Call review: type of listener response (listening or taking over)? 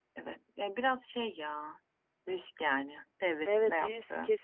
taking over